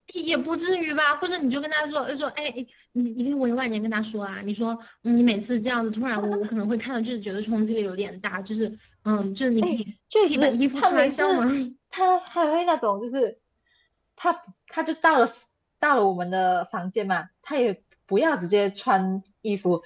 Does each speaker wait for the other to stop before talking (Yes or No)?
No